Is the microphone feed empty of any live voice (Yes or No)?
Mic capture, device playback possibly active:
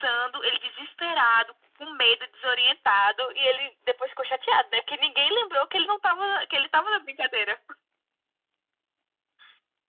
Yes